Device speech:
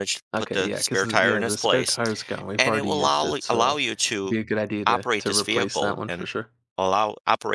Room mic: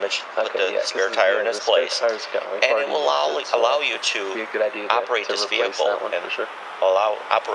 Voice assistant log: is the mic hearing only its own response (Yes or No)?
Yes